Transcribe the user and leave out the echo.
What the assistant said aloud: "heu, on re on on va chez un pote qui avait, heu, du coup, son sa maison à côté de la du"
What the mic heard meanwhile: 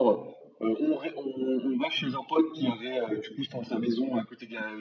none

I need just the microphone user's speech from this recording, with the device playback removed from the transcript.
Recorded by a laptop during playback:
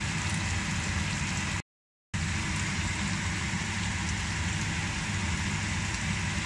none

